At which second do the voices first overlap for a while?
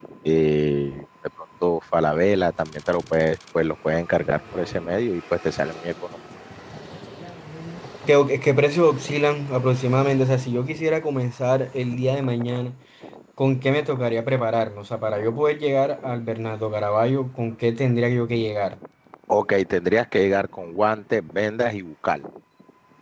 none

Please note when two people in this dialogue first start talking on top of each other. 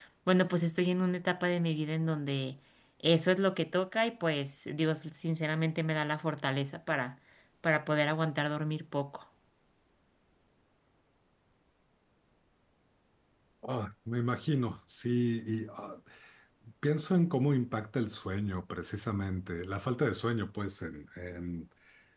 none

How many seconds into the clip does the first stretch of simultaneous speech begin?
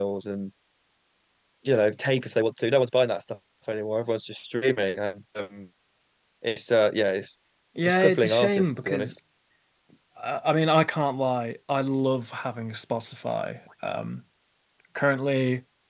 7.8 s

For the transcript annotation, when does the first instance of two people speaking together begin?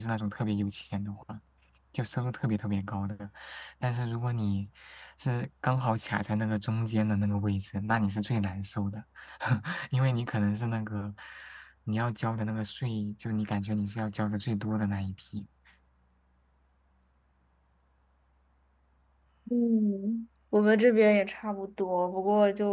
none

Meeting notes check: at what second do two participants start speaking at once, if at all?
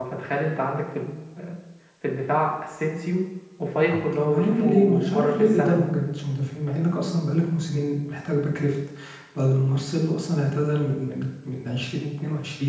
4.1 s

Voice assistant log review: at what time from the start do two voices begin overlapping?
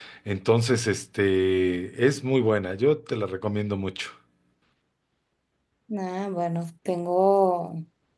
none

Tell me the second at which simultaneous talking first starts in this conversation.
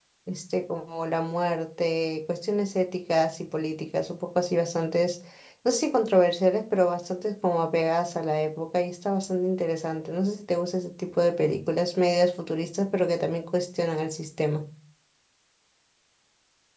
none

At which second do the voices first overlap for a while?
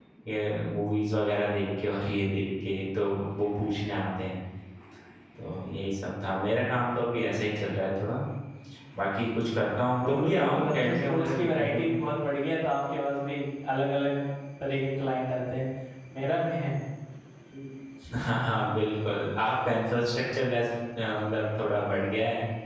10.0 s

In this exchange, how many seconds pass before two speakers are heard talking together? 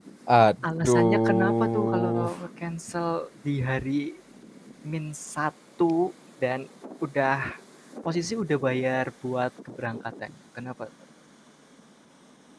0.8 s

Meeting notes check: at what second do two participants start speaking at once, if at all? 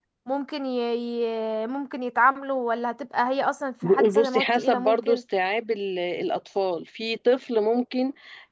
3.8 s

